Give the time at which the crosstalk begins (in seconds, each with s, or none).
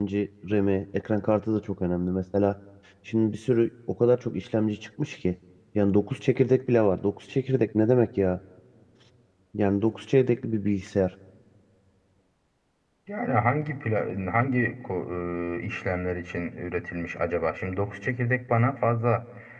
none